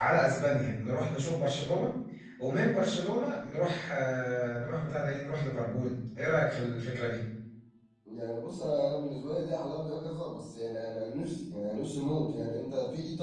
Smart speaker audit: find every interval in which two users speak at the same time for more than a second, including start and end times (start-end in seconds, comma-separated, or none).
none